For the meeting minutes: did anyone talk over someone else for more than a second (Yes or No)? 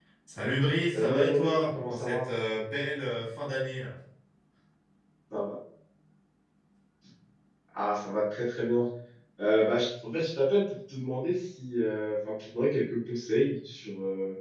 Yes